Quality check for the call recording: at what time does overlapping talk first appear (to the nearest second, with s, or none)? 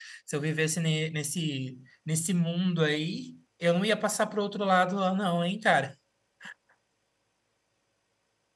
none